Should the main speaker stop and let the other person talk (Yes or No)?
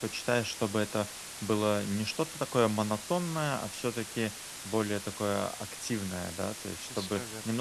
No